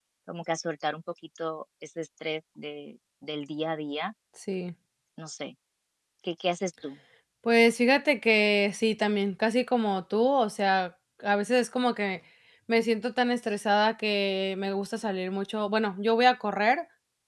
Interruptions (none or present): none